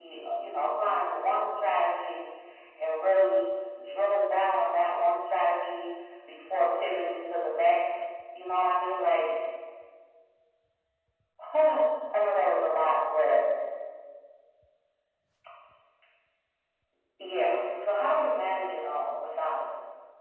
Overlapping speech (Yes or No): No